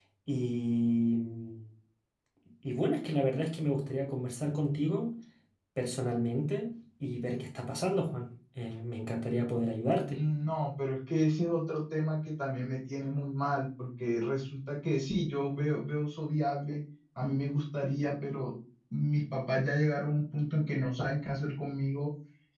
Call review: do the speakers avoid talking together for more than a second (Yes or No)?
Yes